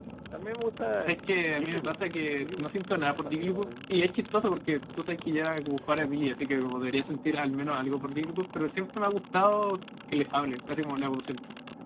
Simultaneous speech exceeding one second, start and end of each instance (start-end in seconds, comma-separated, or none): 2.4-3.7